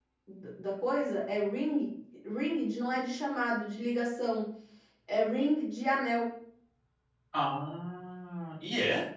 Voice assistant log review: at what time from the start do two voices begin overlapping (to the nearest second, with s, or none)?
none